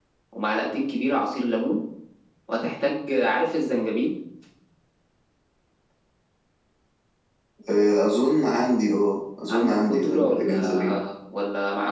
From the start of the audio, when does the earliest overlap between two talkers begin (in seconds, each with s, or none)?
9.5 s